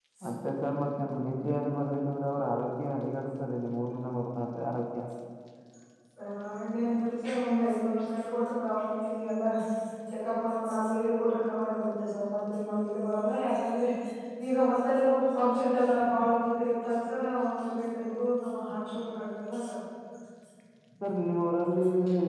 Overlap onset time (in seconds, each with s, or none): none